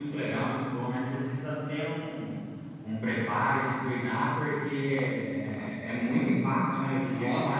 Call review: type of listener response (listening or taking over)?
taking over